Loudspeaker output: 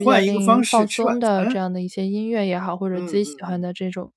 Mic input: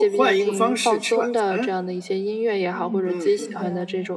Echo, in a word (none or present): present